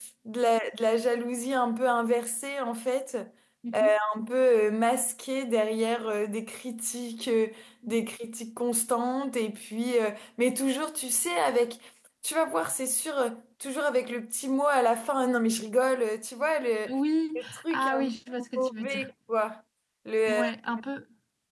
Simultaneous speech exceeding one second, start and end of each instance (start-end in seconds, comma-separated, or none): 17.4-19.1